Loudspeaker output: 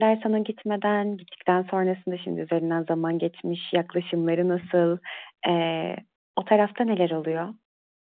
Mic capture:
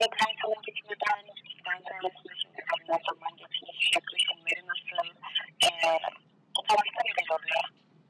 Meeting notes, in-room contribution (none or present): none